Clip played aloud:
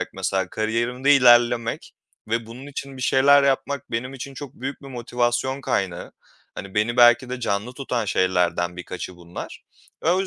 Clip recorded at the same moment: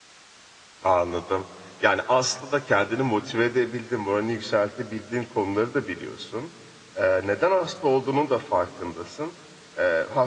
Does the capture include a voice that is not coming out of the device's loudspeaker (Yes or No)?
Yes